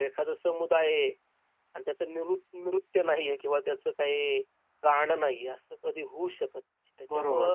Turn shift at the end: No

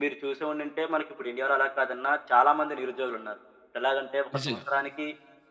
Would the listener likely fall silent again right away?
Yes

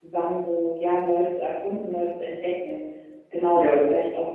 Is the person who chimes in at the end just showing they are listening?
Yes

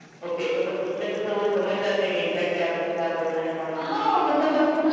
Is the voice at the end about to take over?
Yes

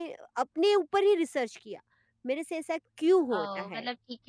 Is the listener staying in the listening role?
No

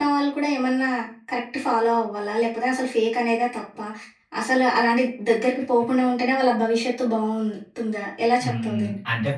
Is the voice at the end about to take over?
Yes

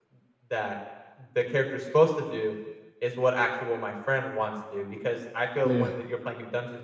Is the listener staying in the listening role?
Yes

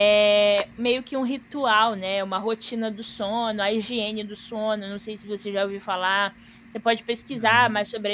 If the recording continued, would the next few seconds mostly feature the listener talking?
No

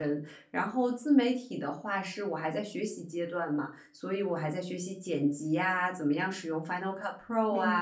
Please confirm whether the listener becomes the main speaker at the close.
No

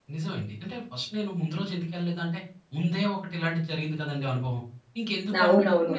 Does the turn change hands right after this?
Yes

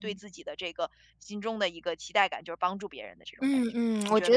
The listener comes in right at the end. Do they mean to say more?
Yes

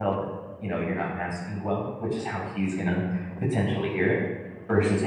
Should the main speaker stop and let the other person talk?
No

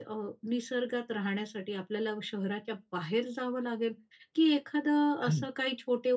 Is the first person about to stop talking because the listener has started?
No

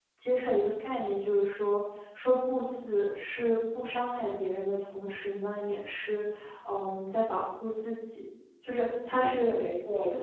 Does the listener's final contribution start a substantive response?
Yes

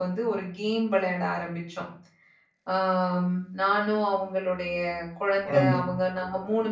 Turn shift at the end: No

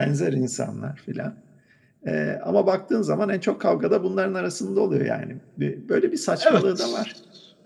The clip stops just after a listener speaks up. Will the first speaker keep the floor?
No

